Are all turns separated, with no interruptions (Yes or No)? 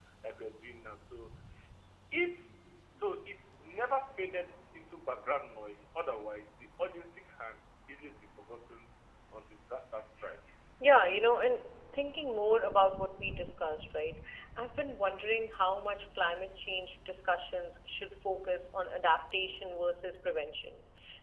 Yes